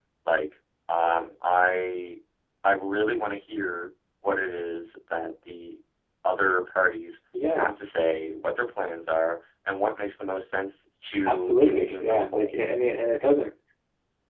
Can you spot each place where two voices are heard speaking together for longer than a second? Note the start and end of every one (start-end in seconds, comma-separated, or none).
11.3-12.5